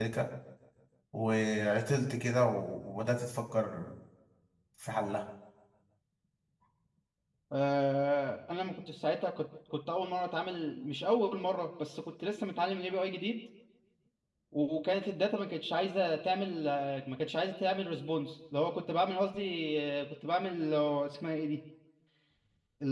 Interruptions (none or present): none